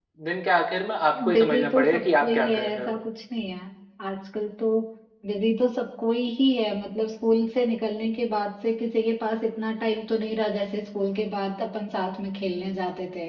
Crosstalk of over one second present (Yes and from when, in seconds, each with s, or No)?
Yes, from 1.1 s